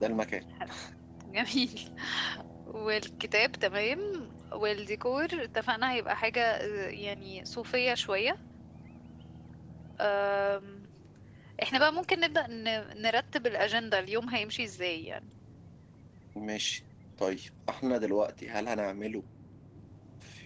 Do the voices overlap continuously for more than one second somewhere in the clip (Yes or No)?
No